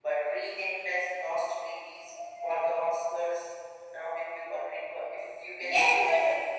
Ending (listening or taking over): taking over